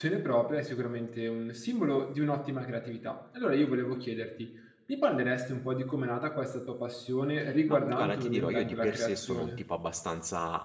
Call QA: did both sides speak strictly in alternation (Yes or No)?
No